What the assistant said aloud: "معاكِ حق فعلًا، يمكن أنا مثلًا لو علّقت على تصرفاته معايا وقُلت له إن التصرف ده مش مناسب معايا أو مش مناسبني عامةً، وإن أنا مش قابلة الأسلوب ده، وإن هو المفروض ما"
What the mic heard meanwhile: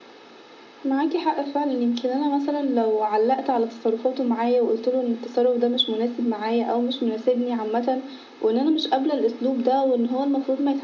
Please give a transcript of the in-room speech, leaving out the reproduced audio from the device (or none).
none